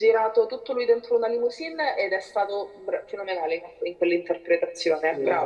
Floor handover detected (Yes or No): Yes